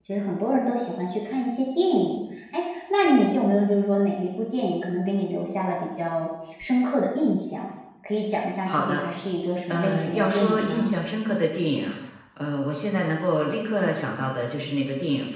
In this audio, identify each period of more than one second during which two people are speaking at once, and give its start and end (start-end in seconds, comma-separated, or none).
9.7-10.9